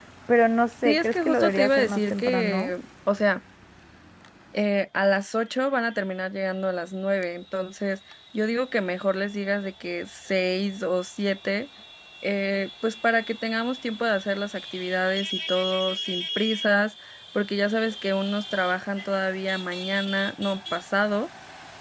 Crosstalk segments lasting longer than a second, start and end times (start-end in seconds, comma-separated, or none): 0.8-2.7